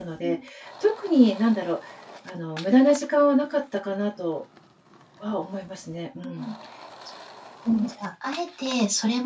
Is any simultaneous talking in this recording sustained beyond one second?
No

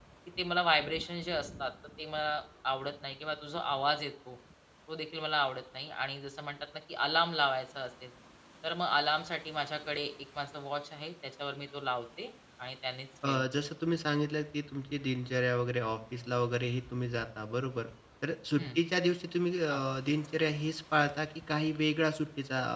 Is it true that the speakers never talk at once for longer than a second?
Yes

